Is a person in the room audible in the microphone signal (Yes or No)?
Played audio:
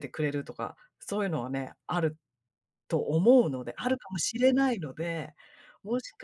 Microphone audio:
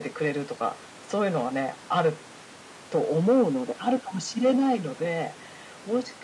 No